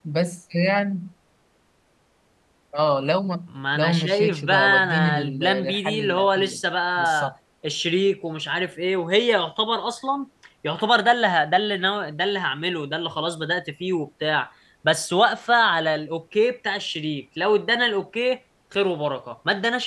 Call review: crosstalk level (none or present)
present